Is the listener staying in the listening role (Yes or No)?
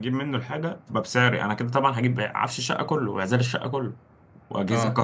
Yes